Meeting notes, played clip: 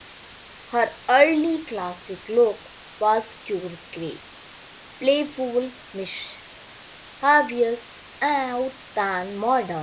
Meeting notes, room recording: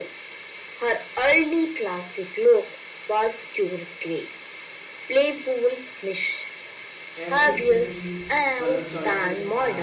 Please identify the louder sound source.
echo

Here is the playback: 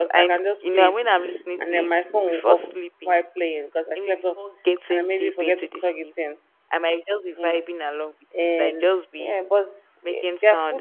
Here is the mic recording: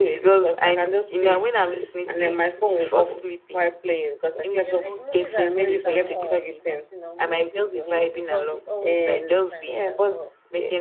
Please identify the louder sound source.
echo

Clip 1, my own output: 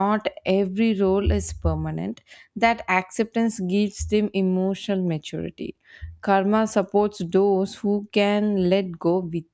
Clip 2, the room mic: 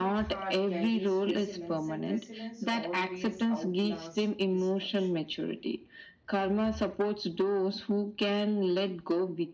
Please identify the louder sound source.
echo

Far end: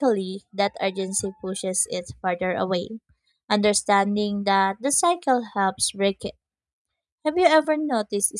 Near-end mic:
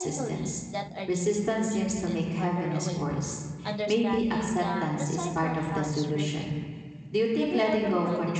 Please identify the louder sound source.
user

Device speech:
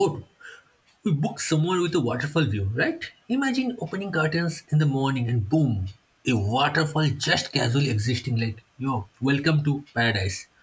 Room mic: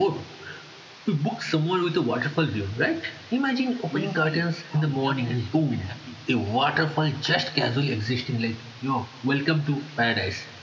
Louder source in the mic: echo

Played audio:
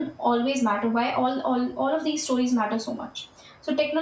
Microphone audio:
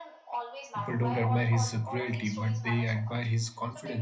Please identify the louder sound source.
user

